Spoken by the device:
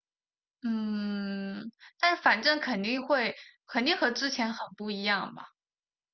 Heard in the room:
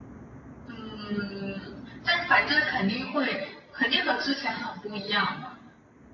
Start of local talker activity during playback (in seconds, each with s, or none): none